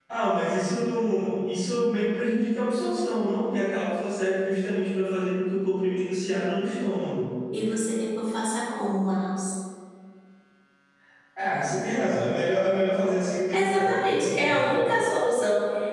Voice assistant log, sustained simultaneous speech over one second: present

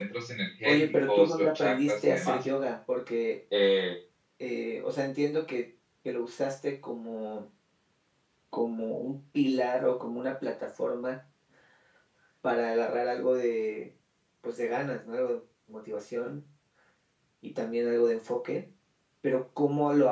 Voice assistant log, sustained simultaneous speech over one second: present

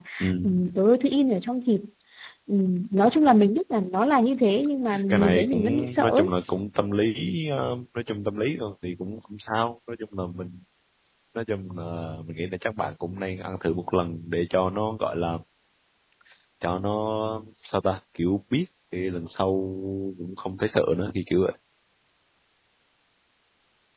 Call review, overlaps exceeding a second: present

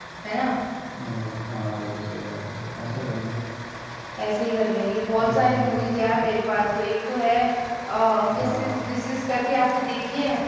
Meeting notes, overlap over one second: none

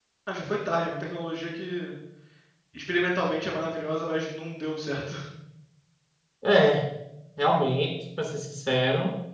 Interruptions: none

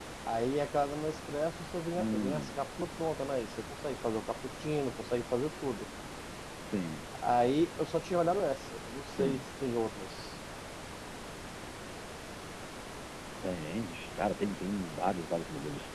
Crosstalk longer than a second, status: none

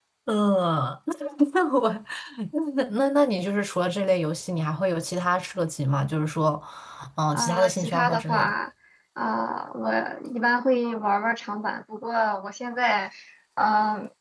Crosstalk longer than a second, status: present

